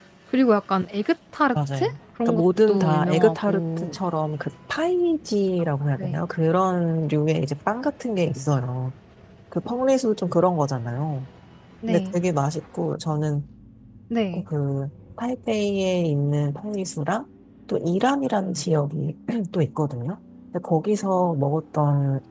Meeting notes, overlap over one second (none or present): present